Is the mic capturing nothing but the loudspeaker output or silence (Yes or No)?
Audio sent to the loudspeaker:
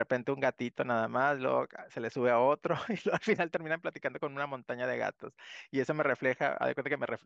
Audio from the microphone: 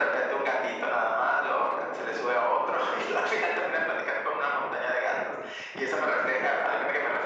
Yes